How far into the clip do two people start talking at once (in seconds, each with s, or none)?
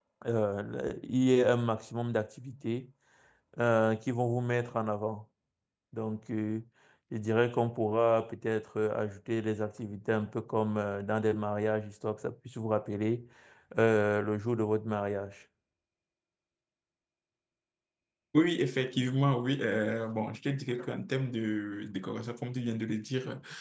none